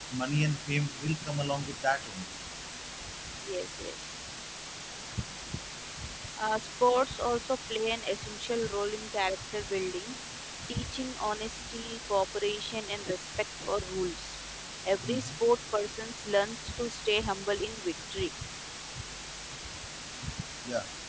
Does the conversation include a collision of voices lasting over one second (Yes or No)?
No